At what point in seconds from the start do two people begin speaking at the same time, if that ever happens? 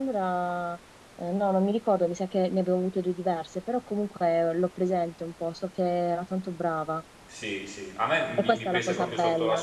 8.4 s

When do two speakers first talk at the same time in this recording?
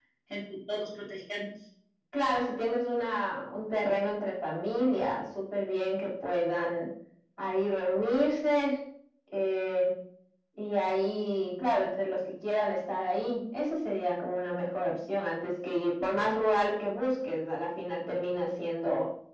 none

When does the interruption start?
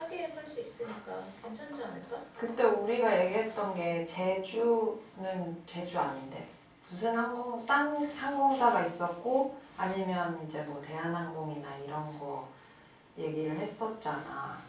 none

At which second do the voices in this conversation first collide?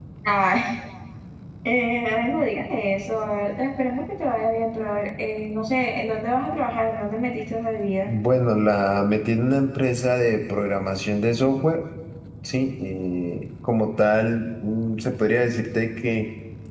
none

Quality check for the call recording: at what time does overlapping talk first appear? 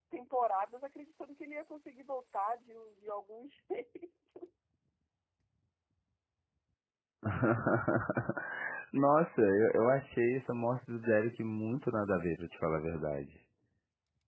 none

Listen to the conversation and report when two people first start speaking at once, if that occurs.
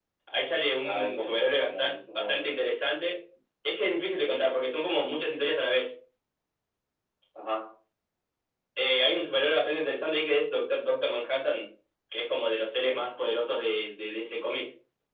0.9 s

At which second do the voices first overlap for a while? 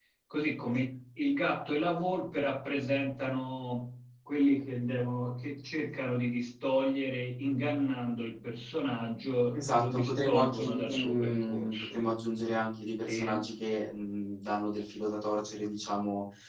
9.6 s

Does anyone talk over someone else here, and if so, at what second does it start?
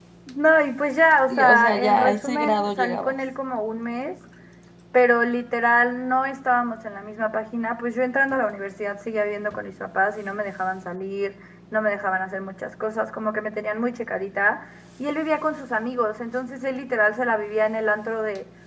1.3 s

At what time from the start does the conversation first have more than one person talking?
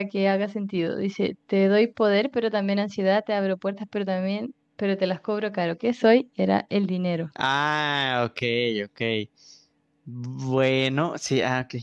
none

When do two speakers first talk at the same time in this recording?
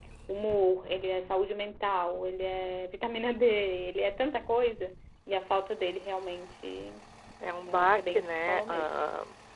7.7 s

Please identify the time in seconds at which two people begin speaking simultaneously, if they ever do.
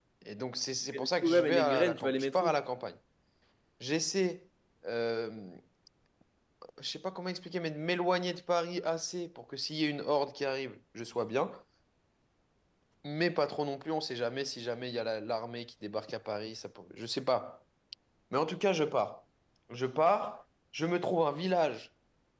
0.9 s

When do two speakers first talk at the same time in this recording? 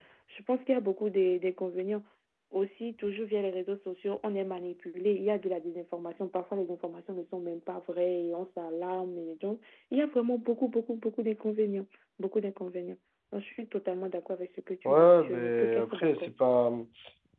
14.8 s

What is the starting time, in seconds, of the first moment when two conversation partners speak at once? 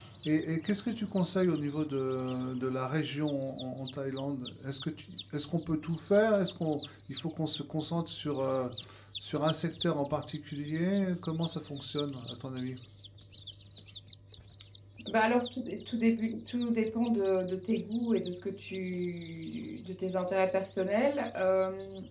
none

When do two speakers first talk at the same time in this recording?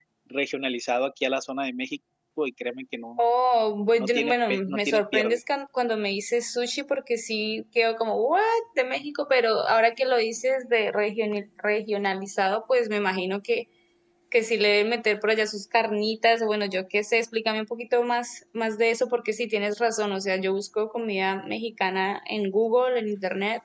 4.0 s

